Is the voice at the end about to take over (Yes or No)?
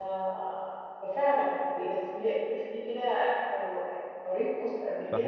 Yes